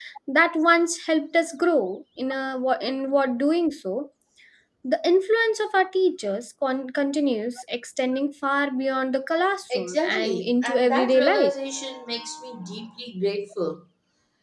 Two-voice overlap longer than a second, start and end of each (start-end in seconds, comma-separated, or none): 9.8-11.5